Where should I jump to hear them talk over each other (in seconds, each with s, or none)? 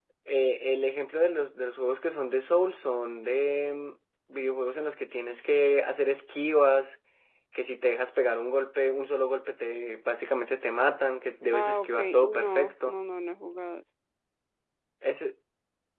11.5 s